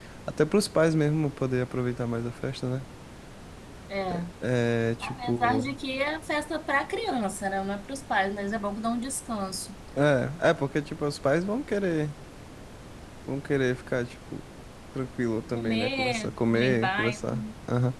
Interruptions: present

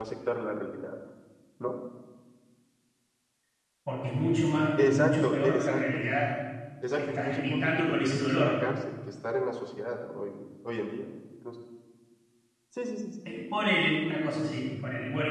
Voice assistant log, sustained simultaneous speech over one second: present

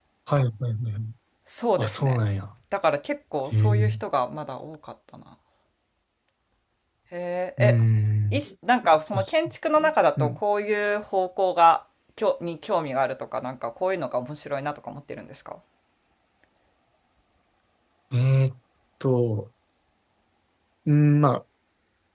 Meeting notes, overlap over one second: none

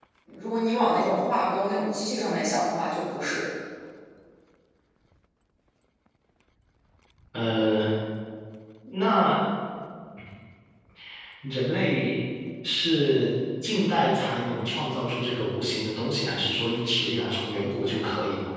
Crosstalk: none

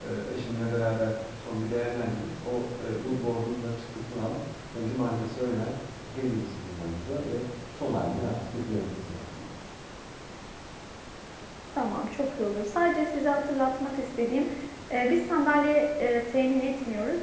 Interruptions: none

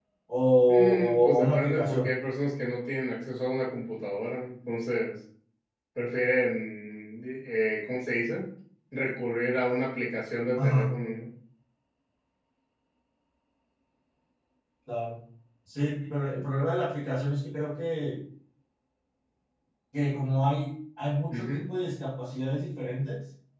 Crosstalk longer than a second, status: present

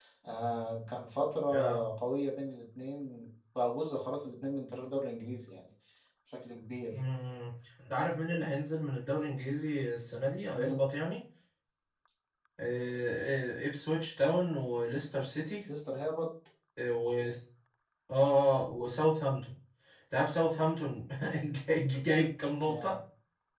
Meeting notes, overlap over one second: none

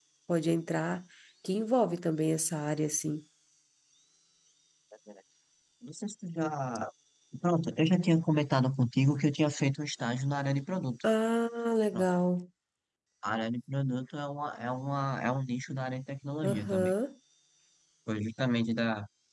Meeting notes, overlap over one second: none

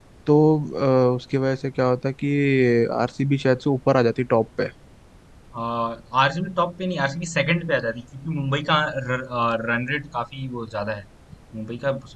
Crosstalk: none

